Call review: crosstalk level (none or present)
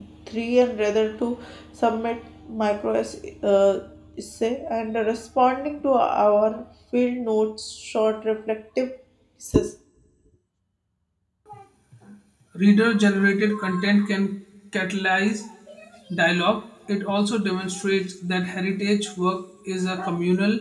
none